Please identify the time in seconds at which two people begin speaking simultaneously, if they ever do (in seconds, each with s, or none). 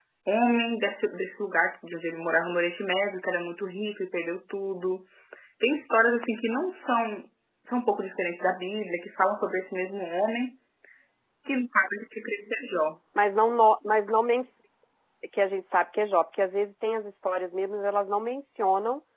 none